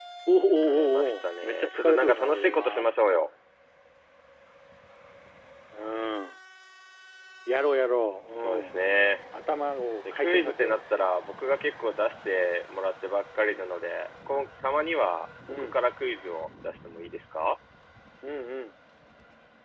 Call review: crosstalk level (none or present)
present